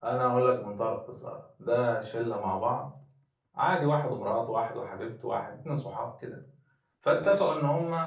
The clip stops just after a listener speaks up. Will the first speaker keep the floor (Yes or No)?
Yes